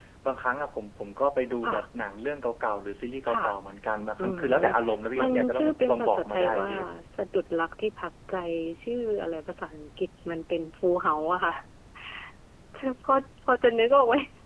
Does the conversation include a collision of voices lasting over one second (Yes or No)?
Yes